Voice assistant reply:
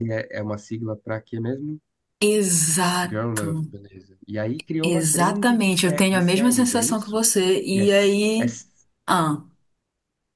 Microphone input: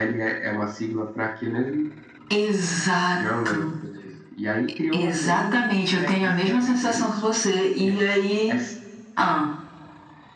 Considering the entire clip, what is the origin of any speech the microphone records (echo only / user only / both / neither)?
echo only